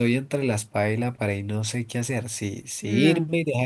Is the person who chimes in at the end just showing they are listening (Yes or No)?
Yes